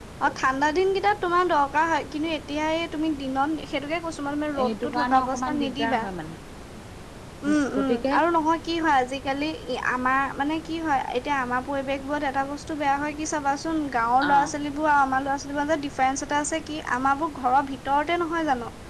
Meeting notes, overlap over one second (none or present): present